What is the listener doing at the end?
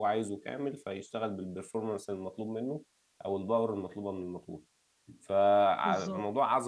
listening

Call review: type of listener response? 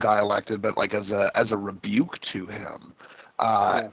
listening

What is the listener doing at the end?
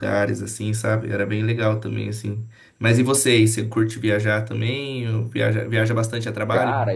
taking over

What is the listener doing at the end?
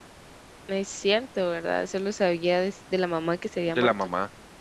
taking over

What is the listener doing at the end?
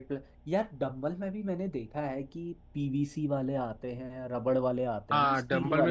taking over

